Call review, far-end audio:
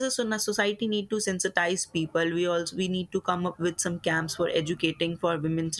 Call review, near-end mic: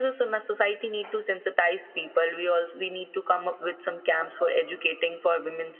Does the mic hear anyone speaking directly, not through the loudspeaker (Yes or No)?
No